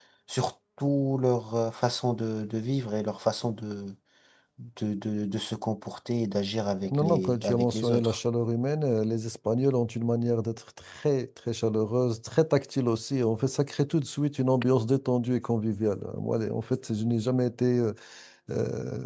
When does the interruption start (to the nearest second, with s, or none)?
7 s